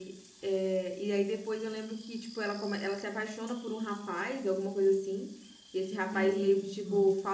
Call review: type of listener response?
listening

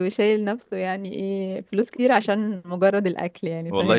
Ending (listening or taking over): taking over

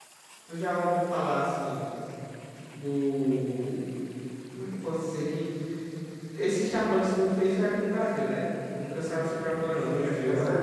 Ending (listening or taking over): taking over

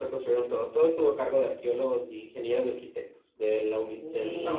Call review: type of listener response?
taking over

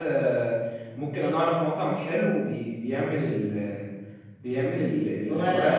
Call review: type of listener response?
listening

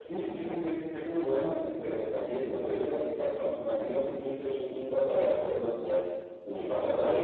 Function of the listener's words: taking over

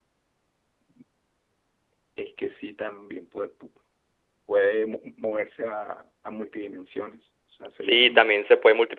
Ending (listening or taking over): taking over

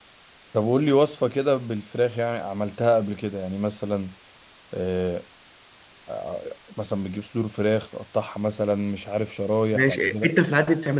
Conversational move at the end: taking over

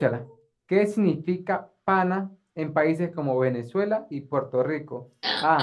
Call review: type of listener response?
listening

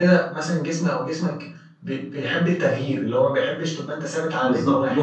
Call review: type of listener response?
taking over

